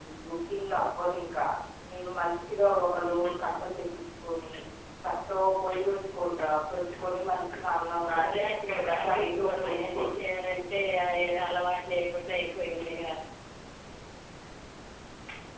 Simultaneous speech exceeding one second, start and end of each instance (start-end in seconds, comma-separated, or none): 8.2-10.2